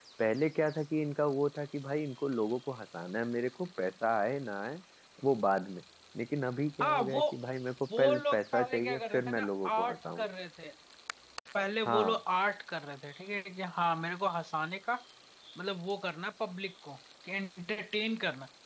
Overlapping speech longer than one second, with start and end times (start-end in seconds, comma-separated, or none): 8.0-10.2